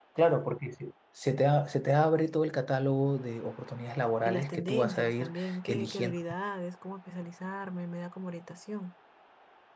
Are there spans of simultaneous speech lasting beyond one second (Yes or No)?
Yes